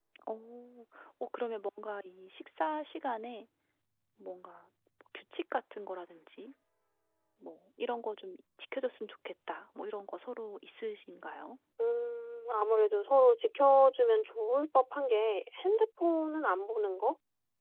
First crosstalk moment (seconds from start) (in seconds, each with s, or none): none